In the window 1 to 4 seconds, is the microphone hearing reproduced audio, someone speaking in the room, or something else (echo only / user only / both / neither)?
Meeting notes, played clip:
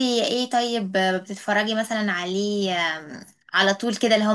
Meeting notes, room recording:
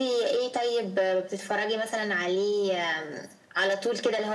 echo only